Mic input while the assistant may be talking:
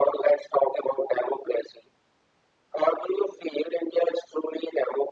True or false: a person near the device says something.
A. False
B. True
A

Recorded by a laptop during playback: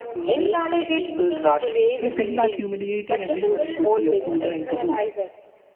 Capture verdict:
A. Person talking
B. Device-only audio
A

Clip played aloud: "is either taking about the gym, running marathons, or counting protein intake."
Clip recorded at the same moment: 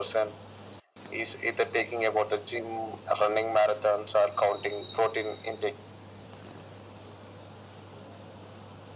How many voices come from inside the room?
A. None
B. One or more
A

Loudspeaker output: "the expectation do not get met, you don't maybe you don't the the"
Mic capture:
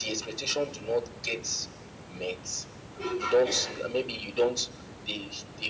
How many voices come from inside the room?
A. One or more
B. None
B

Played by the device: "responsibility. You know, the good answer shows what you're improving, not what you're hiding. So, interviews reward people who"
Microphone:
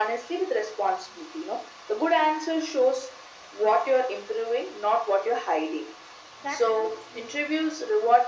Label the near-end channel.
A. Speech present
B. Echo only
A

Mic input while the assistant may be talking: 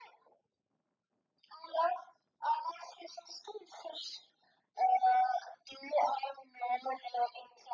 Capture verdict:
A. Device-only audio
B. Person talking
A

